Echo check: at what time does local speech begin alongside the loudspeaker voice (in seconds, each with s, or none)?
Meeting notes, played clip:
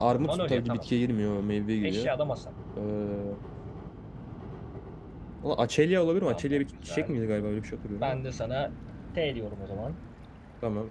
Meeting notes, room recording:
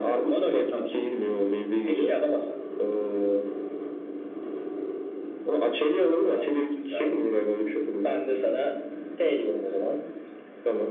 none